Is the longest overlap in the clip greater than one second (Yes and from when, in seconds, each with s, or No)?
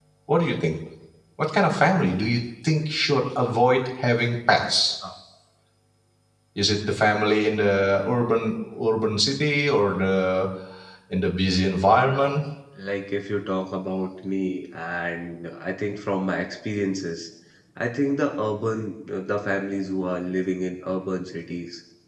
No